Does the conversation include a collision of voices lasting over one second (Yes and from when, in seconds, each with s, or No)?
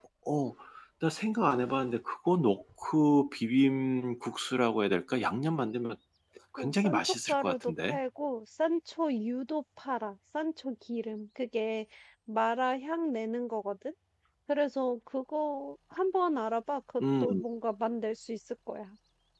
Yes, from 6.6 s